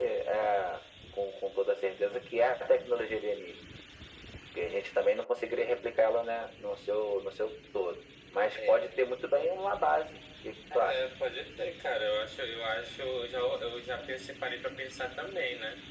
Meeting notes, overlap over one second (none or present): none